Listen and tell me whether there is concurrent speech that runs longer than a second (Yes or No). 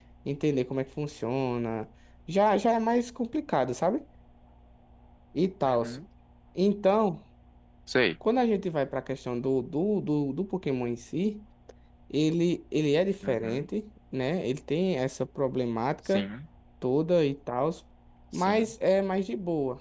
No